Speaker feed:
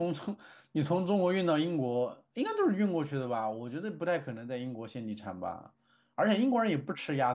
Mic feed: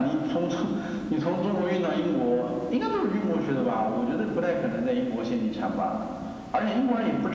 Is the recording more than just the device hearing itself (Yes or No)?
No